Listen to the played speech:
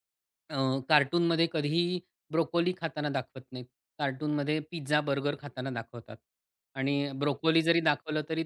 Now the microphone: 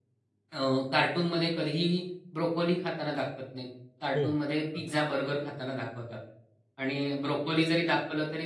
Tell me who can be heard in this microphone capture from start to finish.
both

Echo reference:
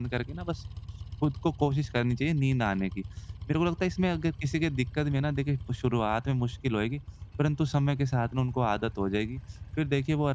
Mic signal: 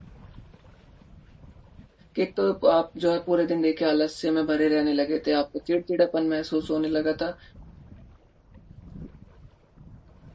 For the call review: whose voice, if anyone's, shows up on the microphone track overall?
user only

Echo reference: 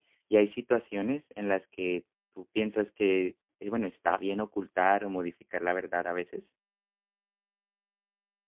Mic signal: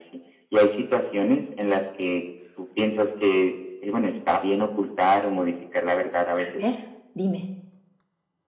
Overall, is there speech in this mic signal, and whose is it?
both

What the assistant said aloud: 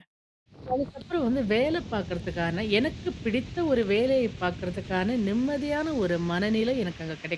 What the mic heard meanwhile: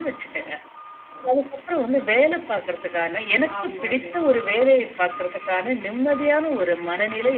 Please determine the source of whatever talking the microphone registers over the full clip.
both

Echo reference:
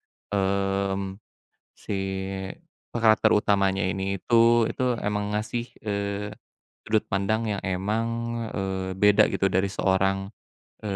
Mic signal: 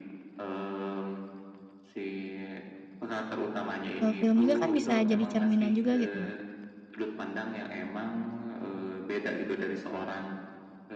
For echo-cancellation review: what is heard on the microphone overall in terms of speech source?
both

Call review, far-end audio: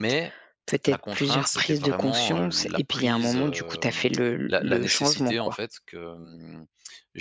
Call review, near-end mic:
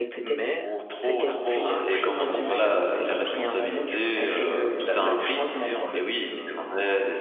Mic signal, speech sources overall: both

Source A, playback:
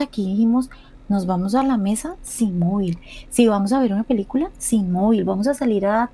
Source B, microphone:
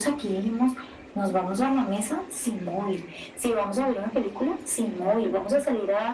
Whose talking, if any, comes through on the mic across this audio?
echo only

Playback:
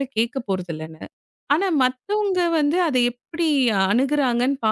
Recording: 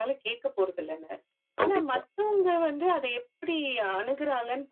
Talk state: both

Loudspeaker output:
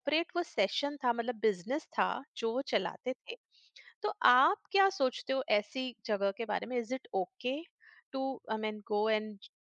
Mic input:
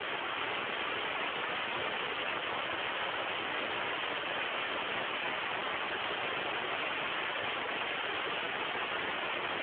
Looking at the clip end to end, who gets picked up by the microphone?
neither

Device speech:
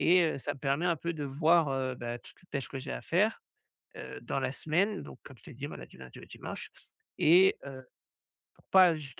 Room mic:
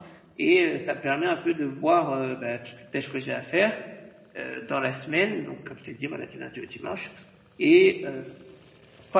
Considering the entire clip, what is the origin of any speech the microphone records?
echo only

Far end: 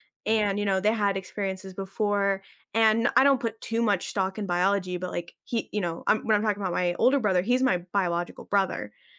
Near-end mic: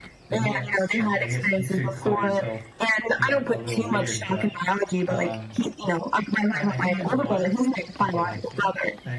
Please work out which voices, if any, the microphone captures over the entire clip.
both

